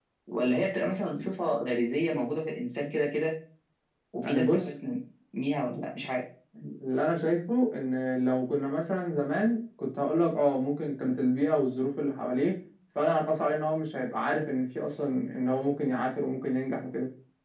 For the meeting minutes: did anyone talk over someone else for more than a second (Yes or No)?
No